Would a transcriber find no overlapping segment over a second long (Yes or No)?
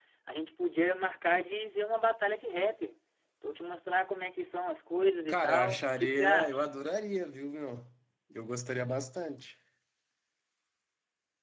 No